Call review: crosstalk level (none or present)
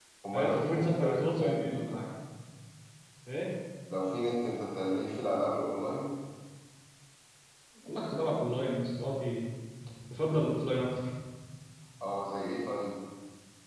present